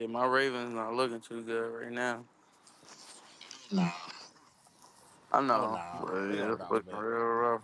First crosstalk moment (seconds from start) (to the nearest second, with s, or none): 6 s